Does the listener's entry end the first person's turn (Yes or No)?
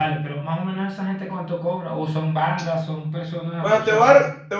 Yes